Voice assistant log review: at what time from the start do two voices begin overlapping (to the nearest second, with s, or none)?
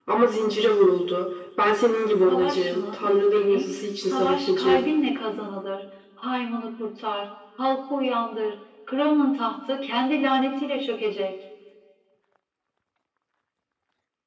2 s